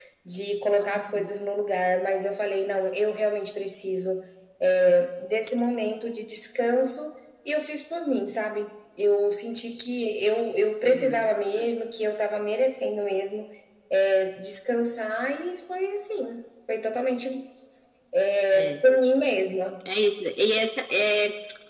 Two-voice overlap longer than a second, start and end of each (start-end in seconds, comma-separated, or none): none